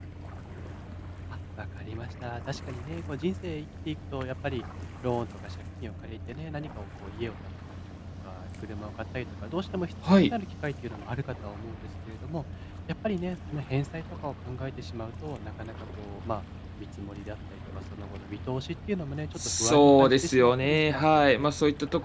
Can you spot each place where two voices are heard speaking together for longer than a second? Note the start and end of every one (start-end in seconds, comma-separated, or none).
19.4-21.5